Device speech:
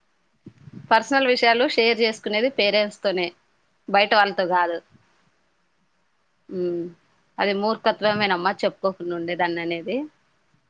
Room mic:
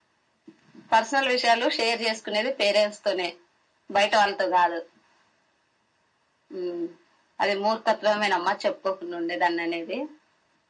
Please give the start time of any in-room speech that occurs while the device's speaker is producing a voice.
none

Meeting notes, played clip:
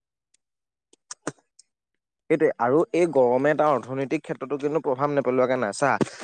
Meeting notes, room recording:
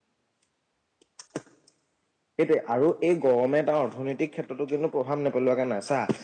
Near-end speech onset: none

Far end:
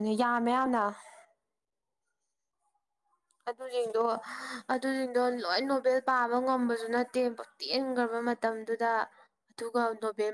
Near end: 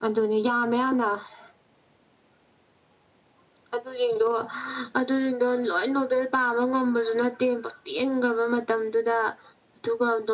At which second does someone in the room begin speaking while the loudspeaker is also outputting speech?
none

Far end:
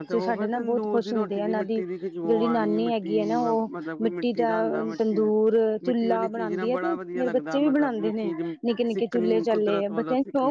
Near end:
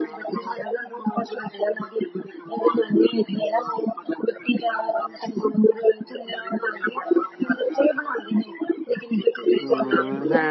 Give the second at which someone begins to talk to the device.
9.6 s

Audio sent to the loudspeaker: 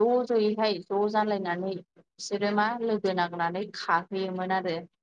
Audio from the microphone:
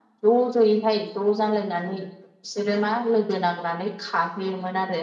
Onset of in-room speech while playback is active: none

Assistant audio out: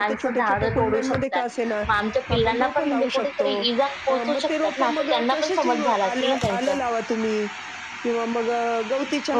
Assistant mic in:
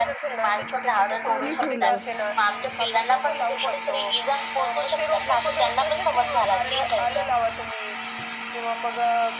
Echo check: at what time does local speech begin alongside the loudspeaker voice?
1.3 s

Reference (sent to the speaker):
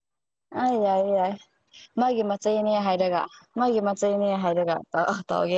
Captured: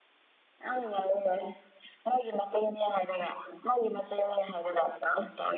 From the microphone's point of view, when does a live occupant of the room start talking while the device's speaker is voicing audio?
none

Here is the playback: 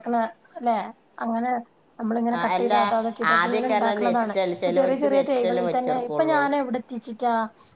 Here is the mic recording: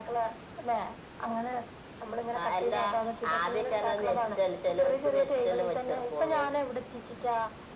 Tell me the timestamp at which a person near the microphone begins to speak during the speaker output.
none

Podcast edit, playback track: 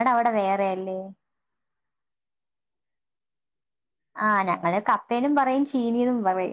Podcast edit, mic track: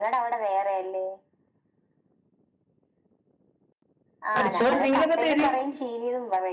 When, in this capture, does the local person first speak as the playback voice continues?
4.3 s

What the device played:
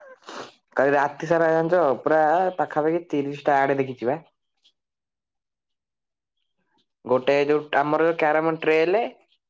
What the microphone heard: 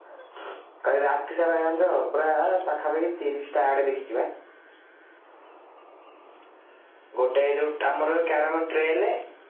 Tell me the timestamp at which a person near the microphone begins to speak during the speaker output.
none

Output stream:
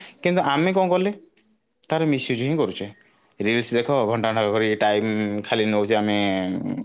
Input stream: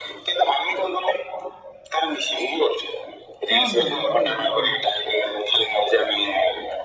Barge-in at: 3.5 s

